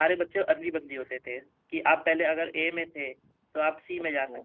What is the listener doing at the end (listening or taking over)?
listening